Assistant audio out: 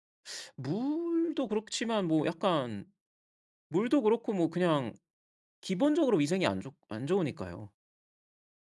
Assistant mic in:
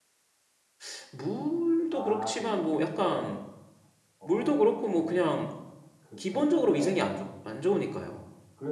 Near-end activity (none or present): present